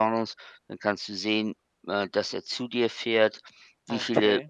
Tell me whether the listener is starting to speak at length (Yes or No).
No